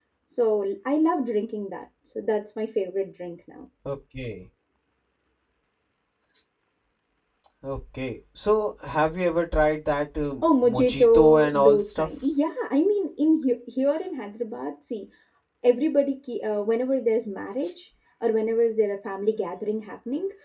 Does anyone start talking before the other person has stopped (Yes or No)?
Yes